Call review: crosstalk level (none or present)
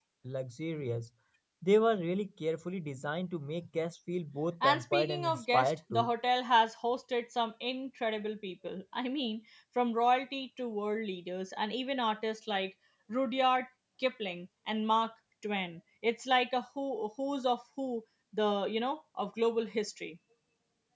present